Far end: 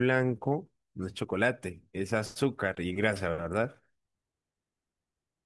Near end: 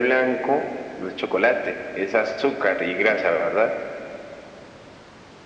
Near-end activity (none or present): none